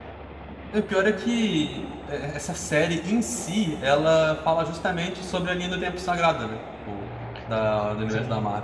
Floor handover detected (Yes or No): No